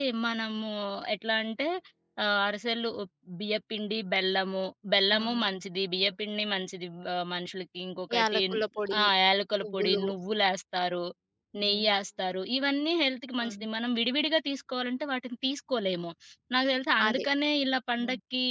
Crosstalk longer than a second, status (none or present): none